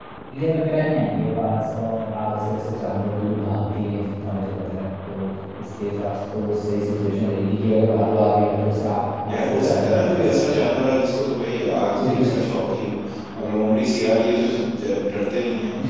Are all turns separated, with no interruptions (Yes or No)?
No